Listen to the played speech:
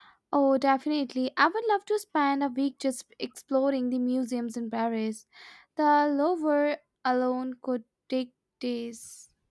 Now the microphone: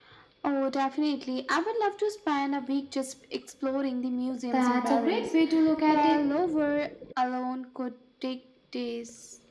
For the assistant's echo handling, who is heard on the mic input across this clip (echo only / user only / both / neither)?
both